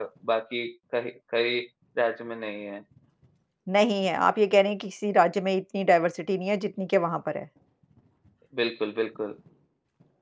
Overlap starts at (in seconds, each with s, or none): none